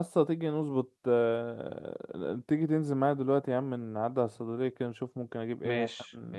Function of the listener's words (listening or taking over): taking over